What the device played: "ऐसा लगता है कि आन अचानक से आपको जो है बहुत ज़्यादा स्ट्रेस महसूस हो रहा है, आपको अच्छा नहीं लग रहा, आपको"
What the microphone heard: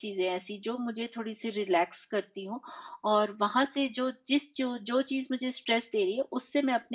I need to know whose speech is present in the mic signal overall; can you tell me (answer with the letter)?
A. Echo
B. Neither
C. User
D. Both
C